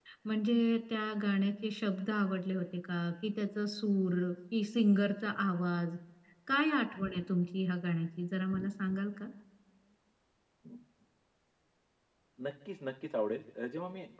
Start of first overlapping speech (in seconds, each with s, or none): none